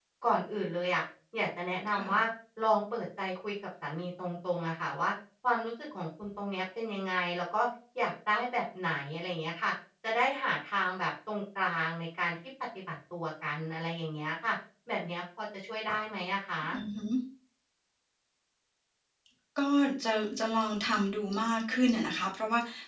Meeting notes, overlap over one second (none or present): none